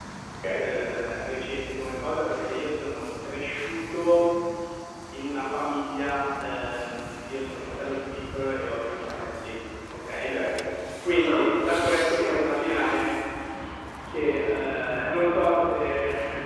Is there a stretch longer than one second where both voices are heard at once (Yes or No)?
No